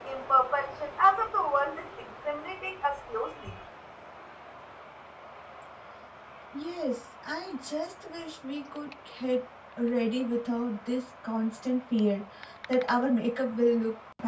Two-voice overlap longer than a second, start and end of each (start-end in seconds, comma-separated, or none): none